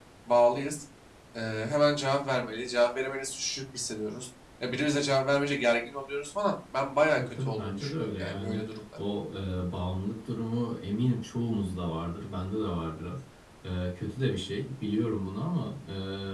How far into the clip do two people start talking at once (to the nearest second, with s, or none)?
7 s